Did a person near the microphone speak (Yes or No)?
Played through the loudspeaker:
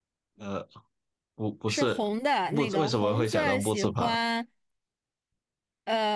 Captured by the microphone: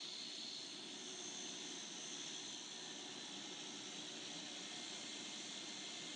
No